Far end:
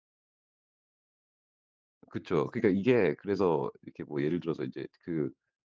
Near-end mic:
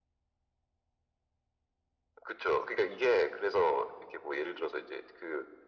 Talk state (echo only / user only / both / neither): echo only